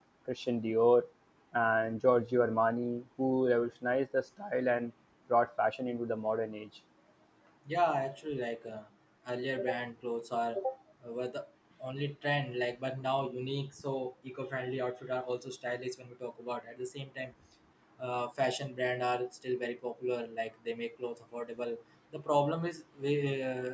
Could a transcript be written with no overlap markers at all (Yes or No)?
Yes